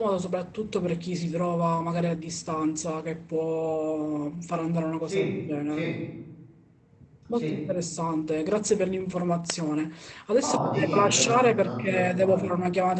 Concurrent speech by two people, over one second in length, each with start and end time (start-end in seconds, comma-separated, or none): 10.4-12.5